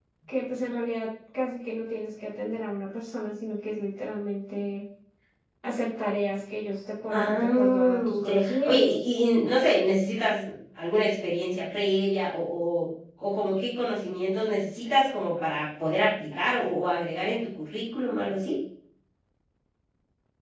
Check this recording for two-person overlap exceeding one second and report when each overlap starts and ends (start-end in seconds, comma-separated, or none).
7.1-8.9